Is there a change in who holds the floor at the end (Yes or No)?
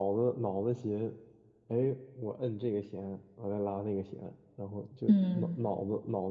No